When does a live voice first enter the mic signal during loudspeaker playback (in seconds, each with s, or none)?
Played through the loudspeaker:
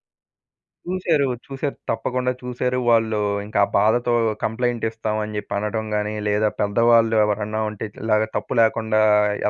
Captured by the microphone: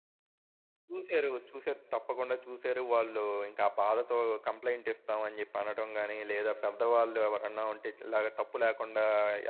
none